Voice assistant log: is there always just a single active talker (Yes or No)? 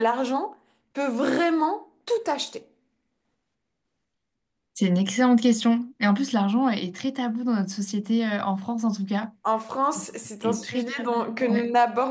No